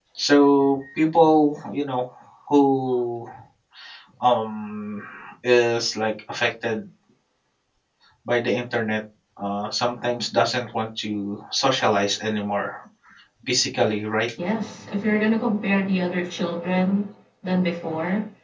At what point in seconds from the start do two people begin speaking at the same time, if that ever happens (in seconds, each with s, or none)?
none